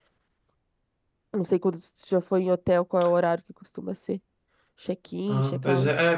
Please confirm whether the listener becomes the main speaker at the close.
Yes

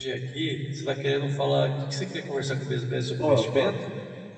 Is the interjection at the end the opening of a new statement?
Yes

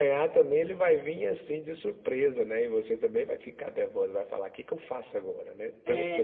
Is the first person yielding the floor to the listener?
Yes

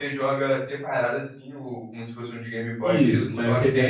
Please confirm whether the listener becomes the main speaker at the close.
Yes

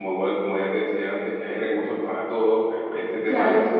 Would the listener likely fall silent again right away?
Yes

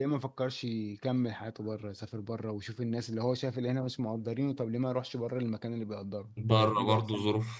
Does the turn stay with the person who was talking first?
No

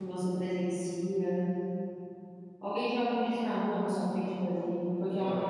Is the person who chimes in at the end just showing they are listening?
No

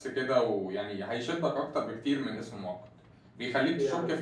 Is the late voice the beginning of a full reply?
No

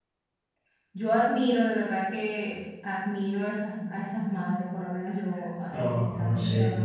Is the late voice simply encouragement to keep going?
No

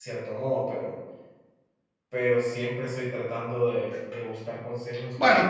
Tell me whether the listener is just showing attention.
No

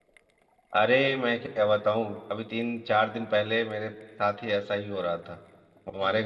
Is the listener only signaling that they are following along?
Yes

